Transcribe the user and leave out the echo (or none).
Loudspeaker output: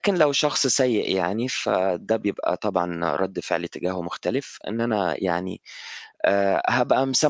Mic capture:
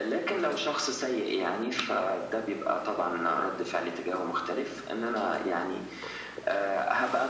none